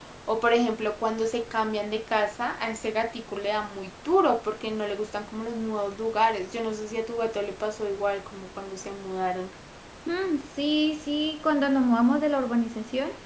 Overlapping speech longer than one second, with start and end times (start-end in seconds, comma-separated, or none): none